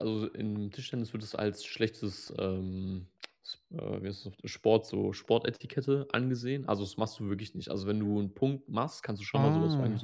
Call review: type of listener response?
listening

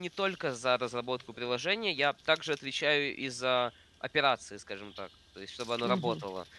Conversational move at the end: listening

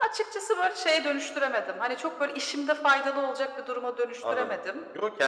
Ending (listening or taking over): taking over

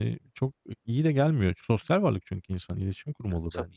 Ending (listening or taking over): taking over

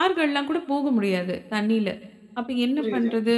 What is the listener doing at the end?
listening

